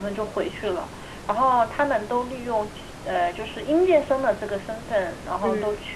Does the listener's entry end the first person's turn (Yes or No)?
No